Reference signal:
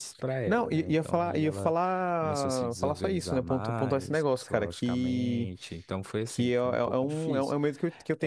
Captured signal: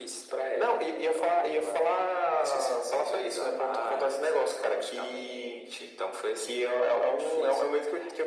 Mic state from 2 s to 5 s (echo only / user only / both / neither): echo only